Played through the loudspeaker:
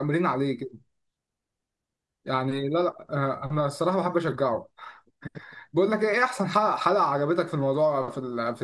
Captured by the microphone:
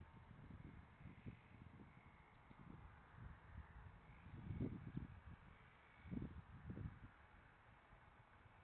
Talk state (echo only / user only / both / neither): neither